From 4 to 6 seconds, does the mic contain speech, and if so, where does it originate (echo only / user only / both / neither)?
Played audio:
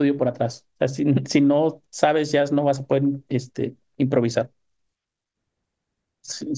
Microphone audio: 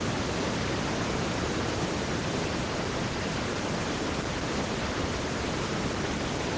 neither